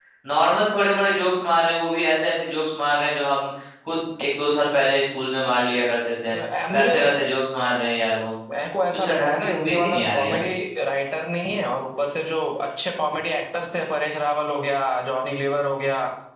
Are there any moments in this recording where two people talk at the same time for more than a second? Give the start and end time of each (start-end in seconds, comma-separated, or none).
8.9-10.4